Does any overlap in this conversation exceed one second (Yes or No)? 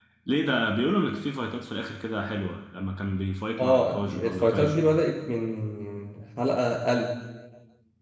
Yes